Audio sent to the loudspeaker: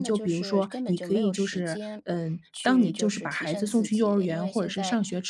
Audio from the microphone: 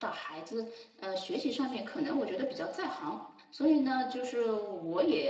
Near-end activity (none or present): present